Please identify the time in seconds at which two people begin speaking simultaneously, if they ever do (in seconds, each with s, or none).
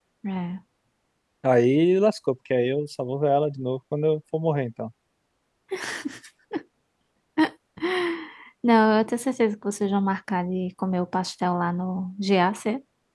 none